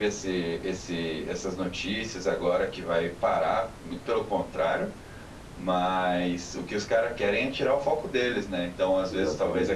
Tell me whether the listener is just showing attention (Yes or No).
Yes